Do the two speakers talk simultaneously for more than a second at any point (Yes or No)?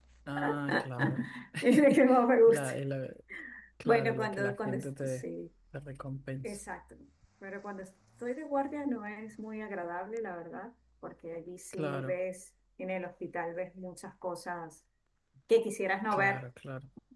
Yes